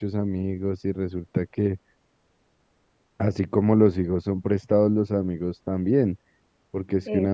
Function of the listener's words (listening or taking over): listening